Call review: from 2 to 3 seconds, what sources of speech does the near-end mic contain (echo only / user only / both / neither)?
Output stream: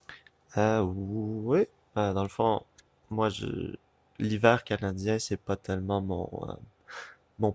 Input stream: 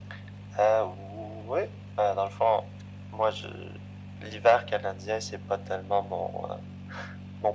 echo only